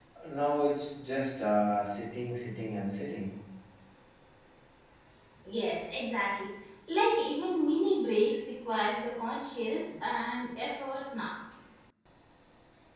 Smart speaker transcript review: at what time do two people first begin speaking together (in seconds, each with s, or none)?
none